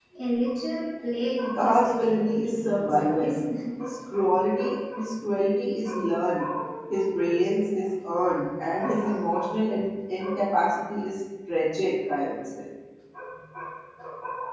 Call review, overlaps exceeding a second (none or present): present